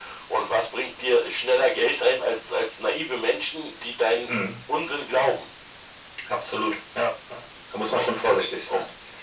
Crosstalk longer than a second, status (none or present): none